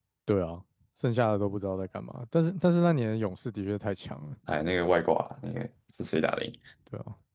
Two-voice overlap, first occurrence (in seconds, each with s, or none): none